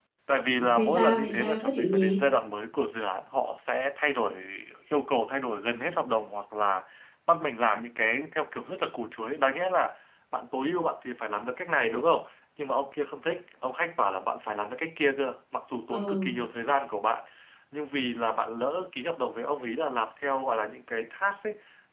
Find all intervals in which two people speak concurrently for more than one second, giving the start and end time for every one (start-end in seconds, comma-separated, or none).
0.6-2.2